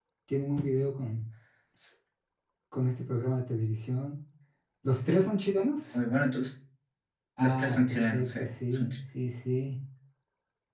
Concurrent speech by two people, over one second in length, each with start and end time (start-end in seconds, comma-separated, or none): 7.4-8.9